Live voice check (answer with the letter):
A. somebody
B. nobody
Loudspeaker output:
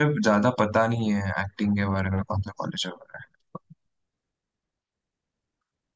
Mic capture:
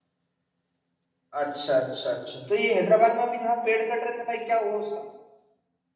A